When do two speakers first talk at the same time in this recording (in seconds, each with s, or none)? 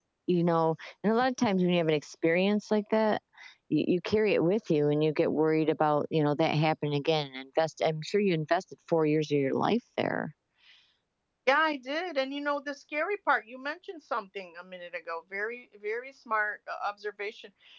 none